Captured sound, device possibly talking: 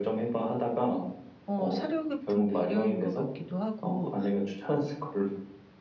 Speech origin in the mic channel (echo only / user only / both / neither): both